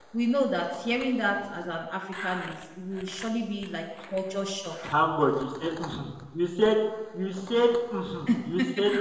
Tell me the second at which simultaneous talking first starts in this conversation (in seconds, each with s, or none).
none